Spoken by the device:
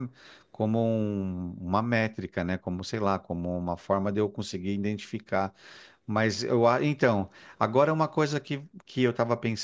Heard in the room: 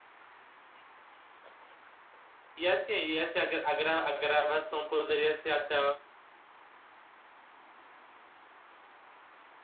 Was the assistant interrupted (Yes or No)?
Yes